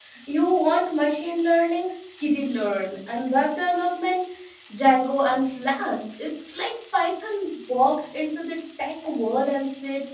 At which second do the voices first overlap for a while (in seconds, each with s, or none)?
none